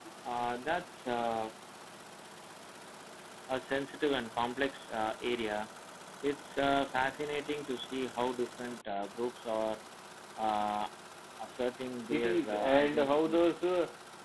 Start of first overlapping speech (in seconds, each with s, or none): 12.1 s